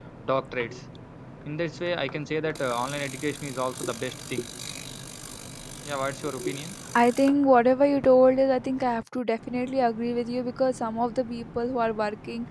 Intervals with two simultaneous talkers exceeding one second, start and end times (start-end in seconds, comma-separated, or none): none